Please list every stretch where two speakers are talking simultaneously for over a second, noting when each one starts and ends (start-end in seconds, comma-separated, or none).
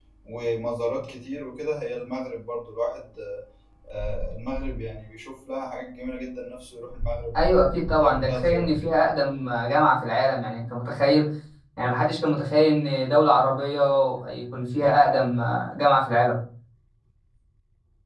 7.4-8.9